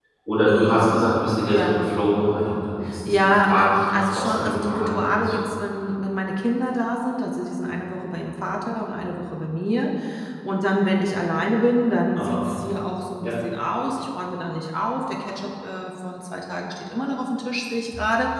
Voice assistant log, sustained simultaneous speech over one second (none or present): present